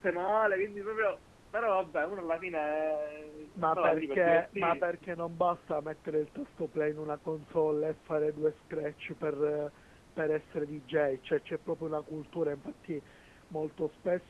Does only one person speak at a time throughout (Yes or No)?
No